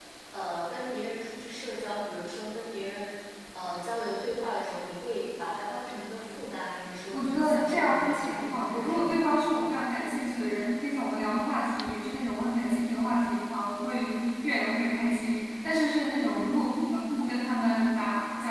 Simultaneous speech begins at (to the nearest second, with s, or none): 7 s